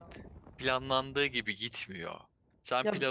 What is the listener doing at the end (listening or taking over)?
listening